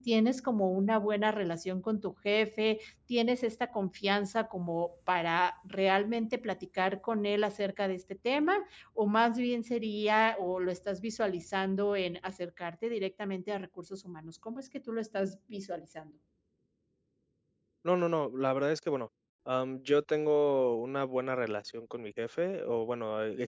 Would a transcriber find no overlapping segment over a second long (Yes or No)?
Yes